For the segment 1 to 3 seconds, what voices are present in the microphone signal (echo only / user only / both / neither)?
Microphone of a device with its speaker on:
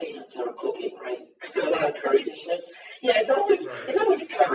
echo only